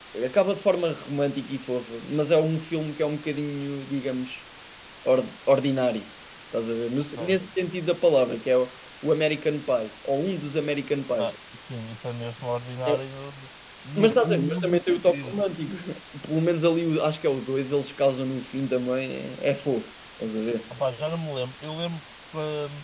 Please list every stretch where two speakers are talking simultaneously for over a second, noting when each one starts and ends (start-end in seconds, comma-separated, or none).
14.0-15.4